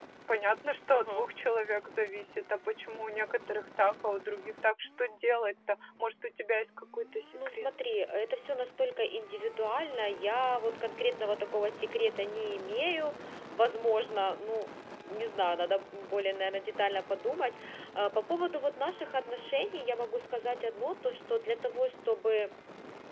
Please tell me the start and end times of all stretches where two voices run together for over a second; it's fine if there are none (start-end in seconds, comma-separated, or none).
none